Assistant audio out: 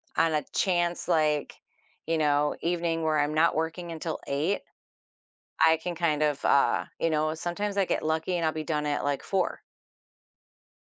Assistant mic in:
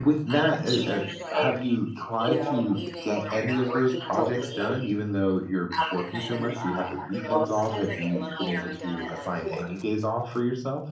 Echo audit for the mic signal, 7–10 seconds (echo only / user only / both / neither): both